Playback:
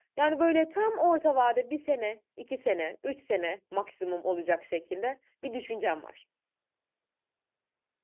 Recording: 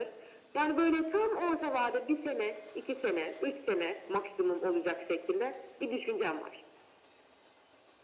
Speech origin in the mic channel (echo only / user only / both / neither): echo only